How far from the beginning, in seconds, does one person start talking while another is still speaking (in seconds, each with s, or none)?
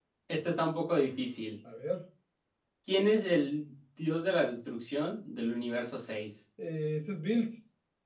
none